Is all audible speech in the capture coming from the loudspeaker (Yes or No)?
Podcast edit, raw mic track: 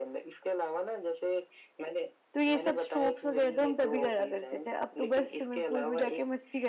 No